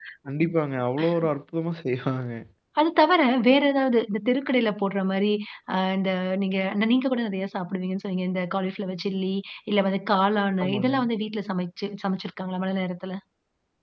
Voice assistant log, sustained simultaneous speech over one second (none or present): none